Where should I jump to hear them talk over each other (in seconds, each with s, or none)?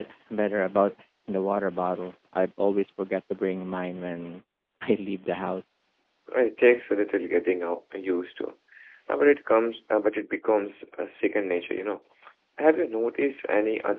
none